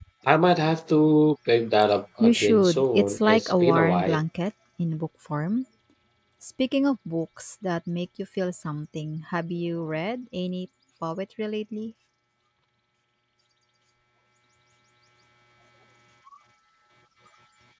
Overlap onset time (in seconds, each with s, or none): 2.2 s